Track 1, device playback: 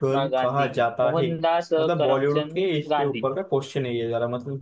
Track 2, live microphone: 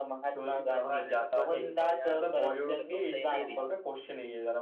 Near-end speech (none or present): present